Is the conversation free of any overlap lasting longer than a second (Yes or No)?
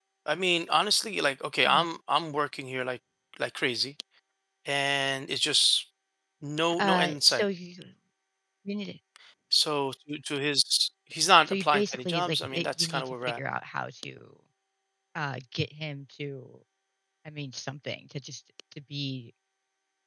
No